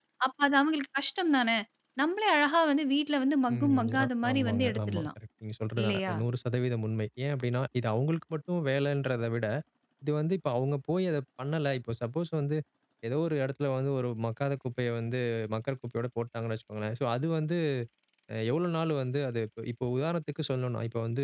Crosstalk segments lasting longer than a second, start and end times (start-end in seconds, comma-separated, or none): 3.5-5.1